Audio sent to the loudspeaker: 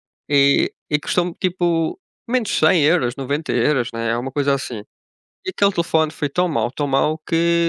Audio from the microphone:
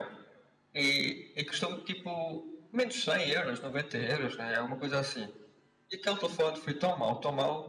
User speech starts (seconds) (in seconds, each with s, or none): none